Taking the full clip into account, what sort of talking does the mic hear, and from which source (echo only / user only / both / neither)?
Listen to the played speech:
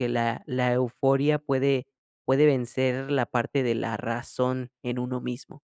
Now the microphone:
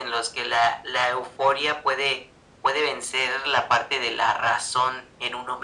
echo only